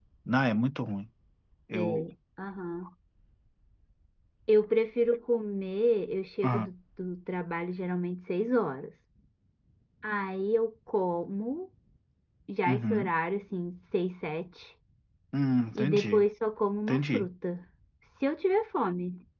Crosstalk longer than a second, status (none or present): none